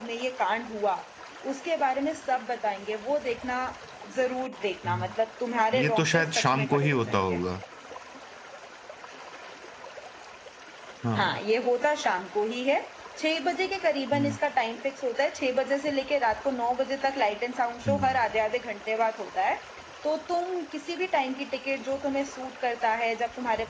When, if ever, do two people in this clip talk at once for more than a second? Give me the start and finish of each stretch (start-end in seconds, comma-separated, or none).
5.8-7.4